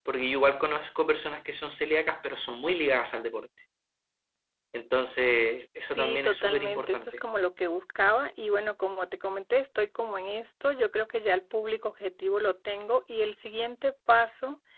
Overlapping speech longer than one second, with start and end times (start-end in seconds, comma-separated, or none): 5.9-7.2